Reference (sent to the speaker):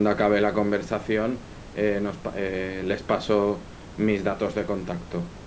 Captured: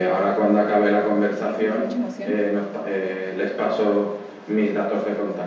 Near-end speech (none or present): present